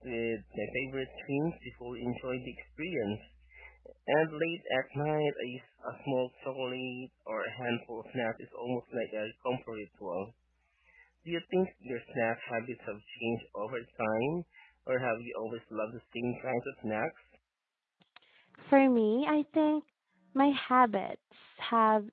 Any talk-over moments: No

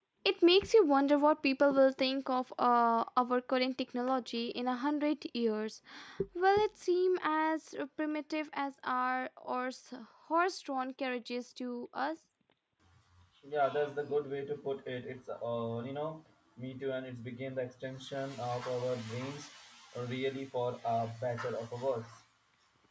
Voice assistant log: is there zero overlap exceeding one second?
Yes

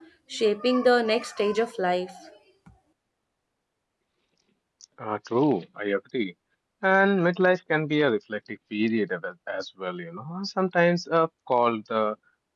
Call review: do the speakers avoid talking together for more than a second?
Yes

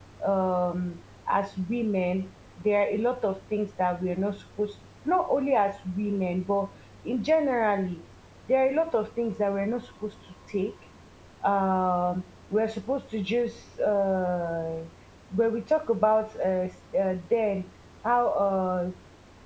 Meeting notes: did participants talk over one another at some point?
No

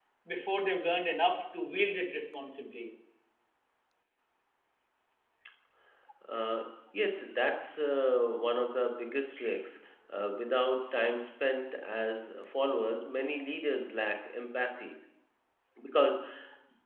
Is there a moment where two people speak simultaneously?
No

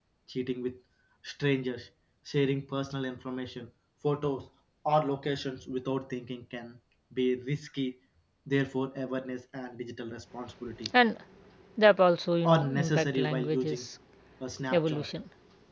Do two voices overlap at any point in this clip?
Yes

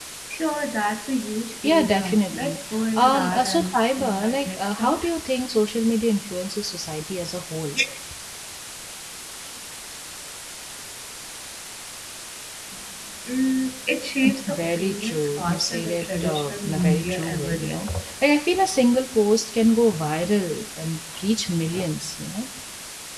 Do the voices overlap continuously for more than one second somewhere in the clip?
Yes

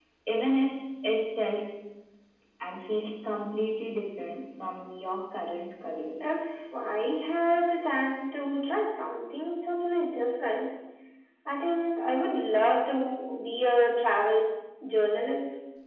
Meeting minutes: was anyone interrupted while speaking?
No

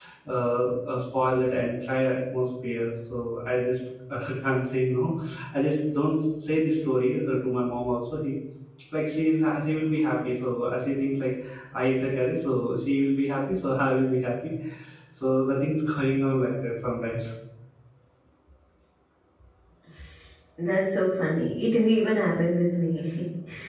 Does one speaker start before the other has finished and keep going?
No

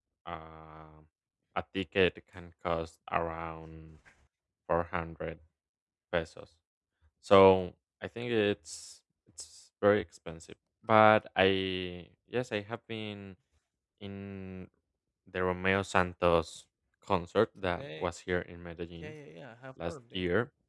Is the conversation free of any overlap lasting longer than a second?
Yes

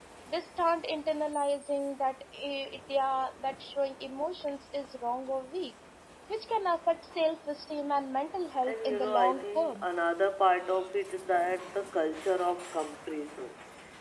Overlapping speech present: Yes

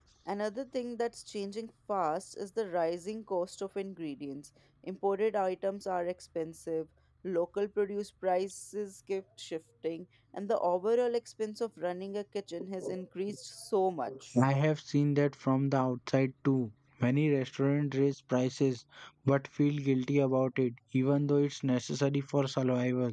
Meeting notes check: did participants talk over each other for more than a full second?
No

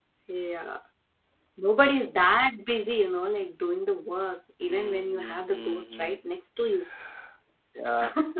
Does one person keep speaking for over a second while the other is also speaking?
Yes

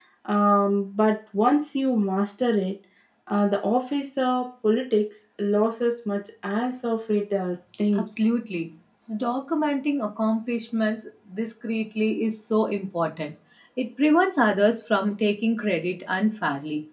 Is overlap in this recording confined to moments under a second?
Yes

